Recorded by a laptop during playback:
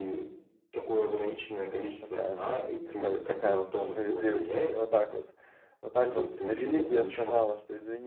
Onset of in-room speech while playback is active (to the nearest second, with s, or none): 2 s